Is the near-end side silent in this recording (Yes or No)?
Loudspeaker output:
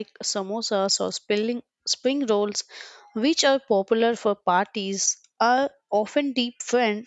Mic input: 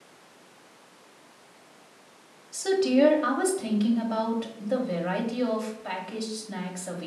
No